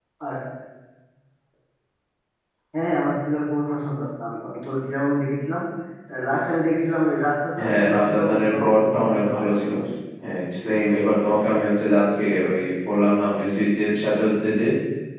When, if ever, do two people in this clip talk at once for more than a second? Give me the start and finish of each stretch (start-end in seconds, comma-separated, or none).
7.6-9.7